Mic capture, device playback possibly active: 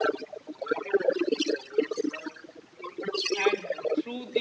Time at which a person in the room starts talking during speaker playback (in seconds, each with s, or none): 3.4 s